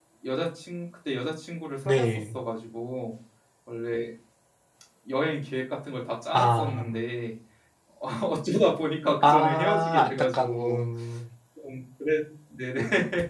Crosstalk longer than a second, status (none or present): present